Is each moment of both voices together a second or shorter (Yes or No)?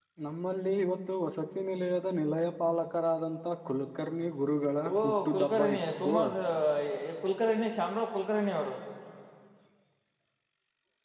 No